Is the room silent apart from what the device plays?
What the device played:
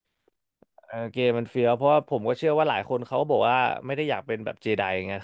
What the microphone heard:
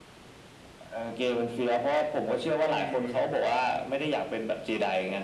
No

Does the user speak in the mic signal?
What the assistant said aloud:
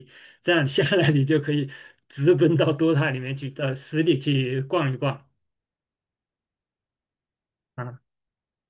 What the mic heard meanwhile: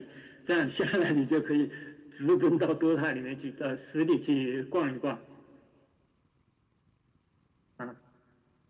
No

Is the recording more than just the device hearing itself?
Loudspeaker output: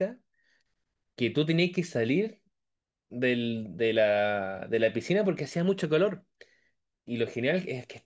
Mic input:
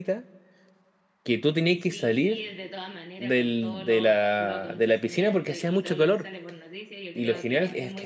Yes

